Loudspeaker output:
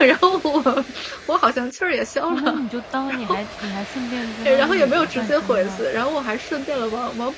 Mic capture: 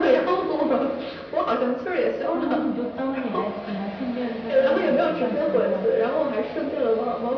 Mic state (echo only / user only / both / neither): echo only